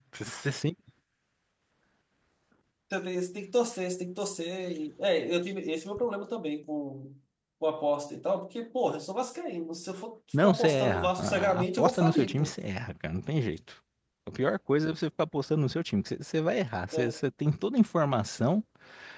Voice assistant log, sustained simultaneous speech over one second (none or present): present